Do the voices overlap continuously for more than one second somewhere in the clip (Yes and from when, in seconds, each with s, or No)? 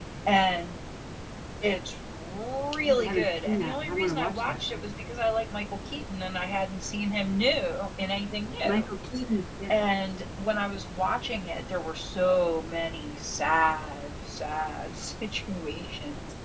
Yes, from 2.8 s